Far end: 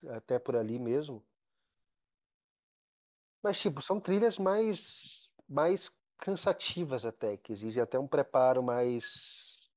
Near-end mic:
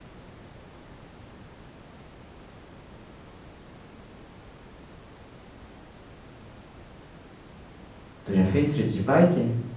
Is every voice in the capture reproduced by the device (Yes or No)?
No